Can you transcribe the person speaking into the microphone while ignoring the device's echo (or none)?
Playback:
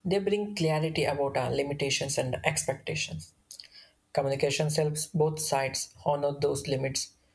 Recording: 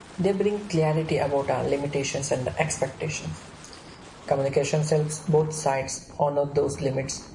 none